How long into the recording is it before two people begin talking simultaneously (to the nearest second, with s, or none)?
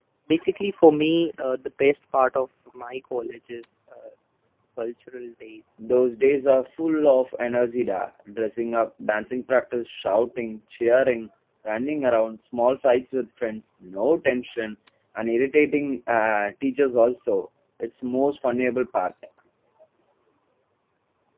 none